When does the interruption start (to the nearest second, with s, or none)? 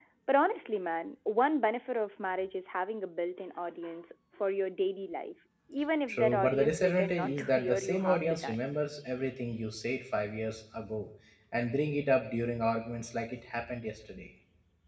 6 s